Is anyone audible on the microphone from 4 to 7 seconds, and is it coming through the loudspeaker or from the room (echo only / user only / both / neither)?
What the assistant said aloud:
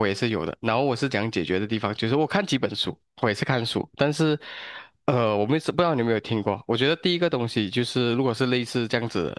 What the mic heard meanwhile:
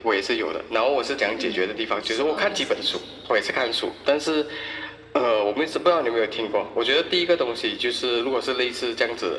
echo only